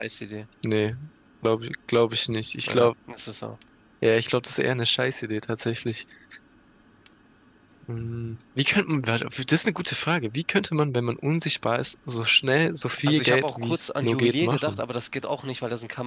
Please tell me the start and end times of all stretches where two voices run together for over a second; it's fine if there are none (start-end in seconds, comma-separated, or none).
13.1-14.8